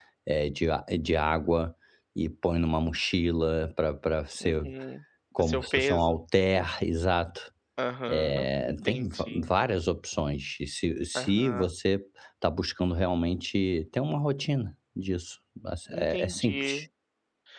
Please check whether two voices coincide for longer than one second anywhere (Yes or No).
Yes